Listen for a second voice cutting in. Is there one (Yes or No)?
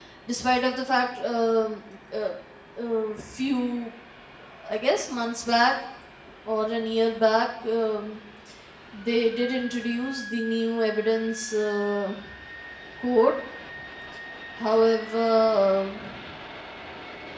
No